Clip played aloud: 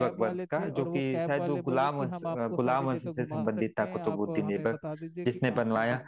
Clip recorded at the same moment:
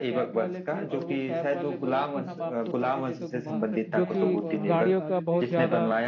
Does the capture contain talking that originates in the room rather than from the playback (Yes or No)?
Yes